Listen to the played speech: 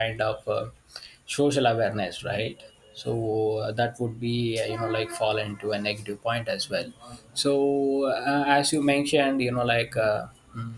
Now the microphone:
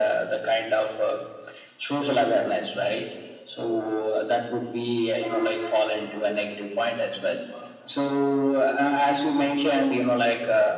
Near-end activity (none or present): none